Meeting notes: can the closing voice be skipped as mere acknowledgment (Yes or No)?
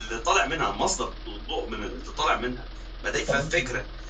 Yes